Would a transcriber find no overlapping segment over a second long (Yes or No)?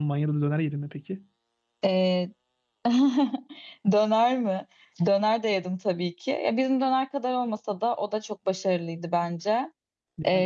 Yes